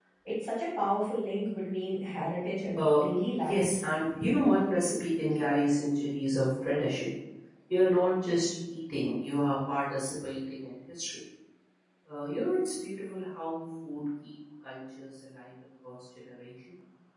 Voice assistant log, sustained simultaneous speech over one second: none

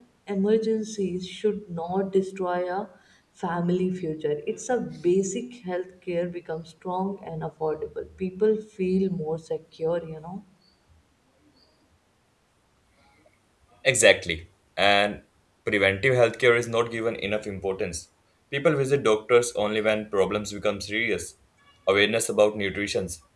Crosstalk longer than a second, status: none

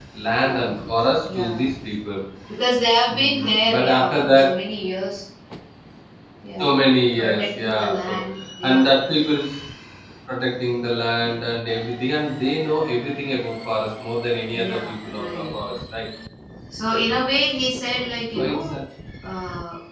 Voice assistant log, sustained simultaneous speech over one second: present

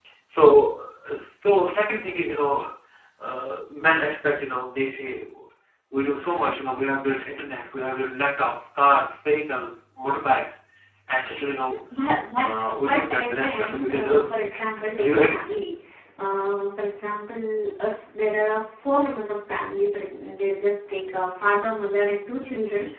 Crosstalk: present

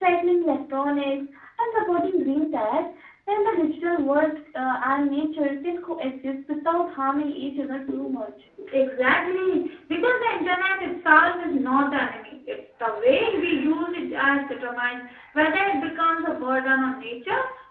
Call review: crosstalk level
none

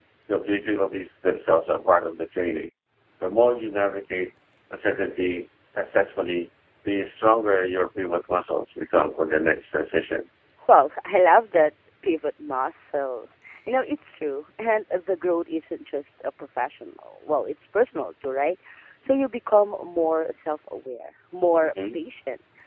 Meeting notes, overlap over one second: none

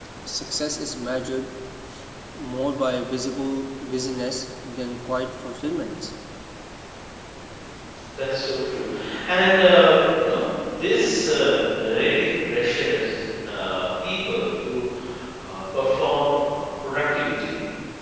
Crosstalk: none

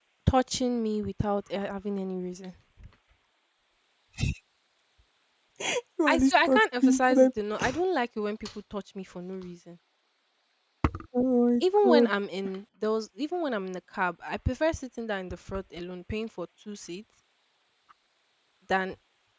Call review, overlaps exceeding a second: present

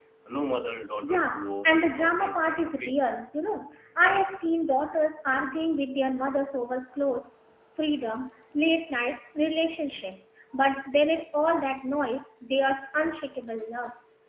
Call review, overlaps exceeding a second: present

